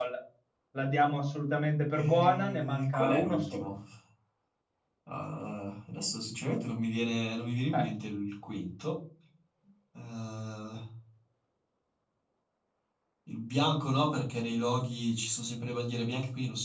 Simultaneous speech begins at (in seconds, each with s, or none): 2.0 s